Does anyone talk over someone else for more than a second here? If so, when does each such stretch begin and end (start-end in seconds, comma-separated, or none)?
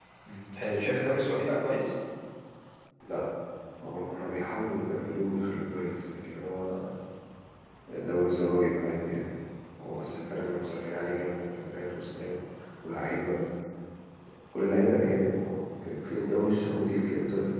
none